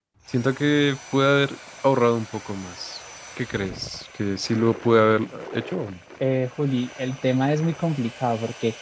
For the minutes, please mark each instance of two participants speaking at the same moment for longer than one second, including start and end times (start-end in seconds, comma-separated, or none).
none